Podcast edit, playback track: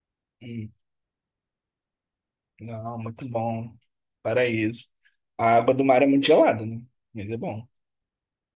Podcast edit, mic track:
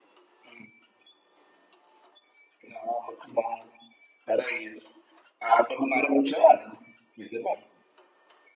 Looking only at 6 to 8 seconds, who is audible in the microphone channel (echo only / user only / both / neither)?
echo only